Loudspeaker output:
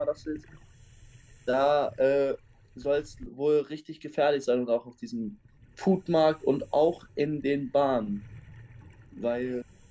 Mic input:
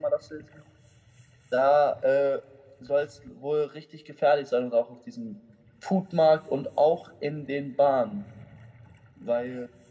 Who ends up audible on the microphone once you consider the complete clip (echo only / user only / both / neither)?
echo only